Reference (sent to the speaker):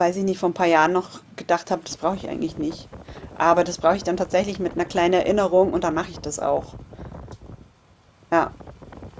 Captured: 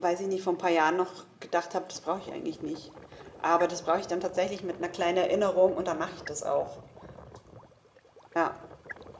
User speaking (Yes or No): No